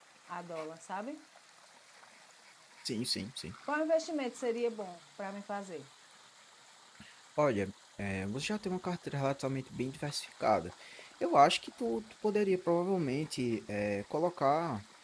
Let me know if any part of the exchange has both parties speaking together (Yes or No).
No